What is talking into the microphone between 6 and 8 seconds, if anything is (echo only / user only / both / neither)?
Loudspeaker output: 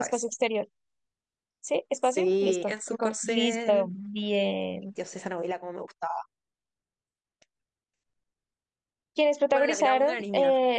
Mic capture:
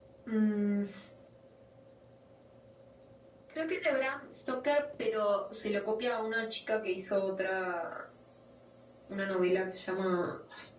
user only